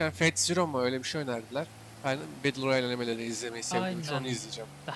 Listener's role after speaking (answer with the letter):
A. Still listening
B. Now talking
B